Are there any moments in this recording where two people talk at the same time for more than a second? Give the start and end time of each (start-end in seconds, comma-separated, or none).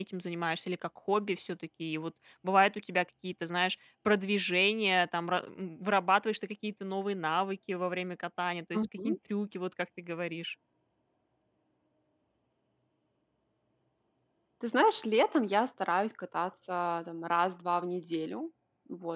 none